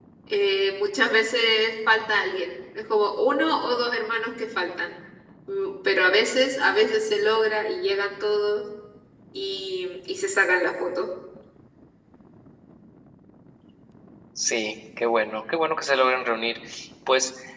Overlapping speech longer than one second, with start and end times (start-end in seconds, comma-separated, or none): none